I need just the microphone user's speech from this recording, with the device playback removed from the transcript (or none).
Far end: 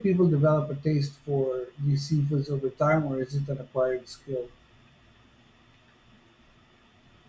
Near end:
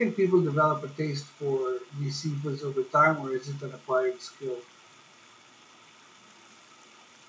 none